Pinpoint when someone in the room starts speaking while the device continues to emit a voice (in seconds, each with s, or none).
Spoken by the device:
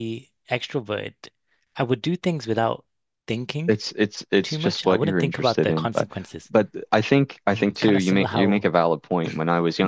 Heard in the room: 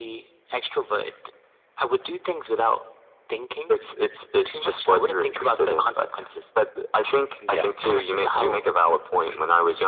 7.4 s